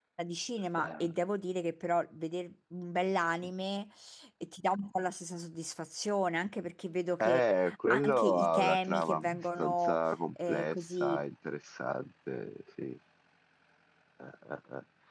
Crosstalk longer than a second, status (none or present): present